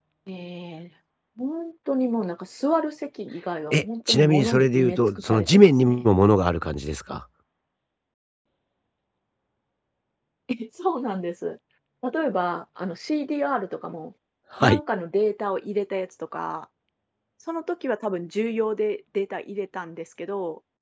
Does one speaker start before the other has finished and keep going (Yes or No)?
Yes